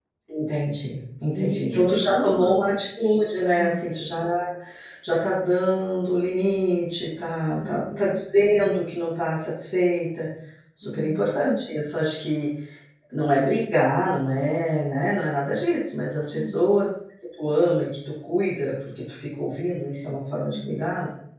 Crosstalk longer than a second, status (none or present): present